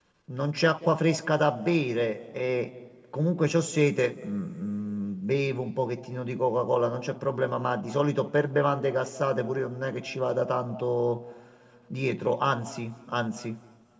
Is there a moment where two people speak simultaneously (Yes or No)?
No